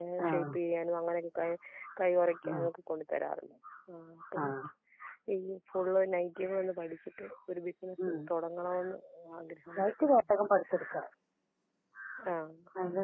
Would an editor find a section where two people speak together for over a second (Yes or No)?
No